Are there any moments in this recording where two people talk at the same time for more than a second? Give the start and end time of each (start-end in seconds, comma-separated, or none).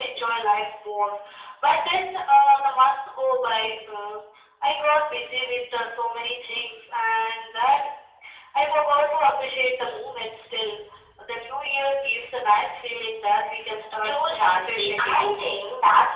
14.0-15.3